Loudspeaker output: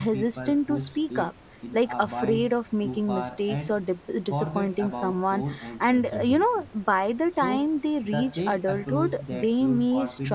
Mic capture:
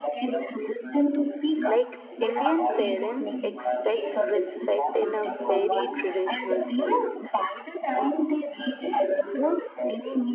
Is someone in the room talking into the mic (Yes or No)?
Yes